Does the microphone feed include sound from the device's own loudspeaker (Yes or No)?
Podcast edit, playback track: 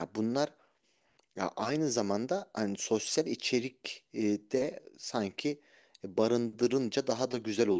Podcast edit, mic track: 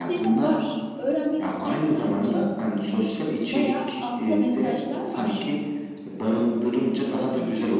Yes